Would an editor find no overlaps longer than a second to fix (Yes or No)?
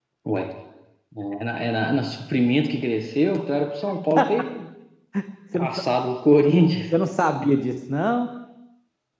Yes